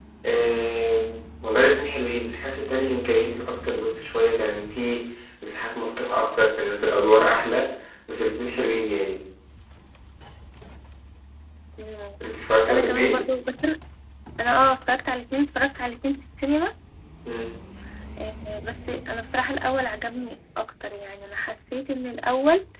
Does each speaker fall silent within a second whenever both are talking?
Yes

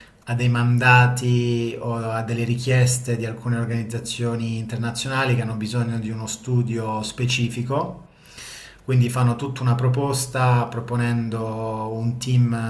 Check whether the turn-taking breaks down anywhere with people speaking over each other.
No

